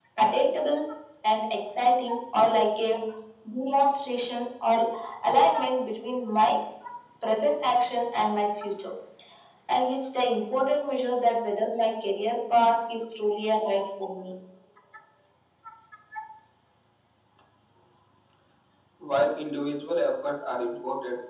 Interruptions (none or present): none